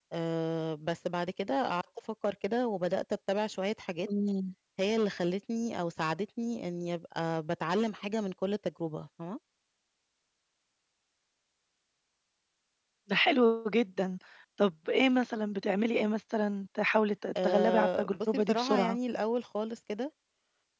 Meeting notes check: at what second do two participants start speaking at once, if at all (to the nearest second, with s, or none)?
17 s